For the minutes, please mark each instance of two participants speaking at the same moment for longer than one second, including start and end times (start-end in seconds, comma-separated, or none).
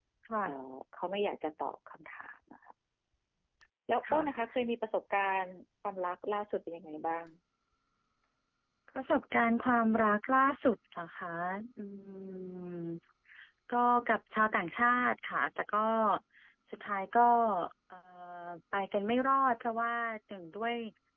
none